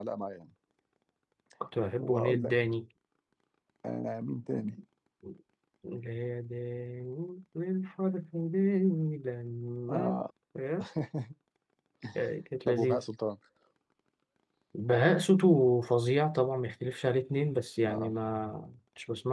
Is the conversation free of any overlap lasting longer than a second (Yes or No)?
Yes